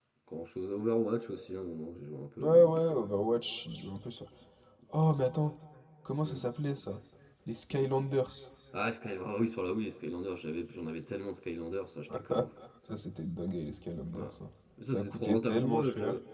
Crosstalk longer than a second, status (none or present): present